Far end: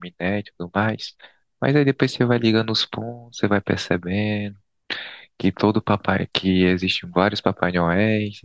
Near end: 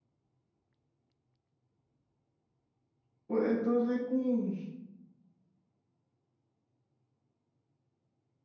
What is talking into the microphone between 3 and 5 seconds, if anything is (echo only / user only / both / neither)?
user only